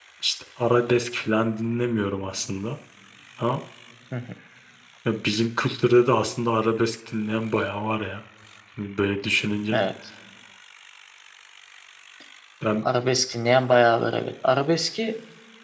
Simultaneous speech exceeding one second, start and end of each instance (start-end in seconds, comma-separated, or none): none